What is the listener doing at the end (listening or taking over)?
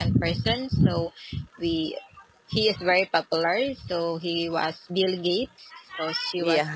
listening